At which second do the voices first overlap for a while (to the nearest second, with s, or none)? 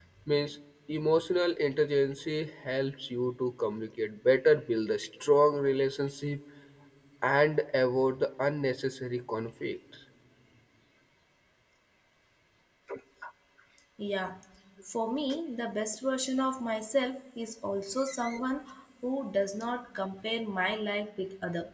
none